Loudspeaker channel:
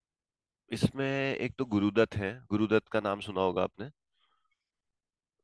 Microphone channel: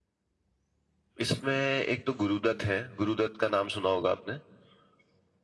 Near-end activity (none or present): none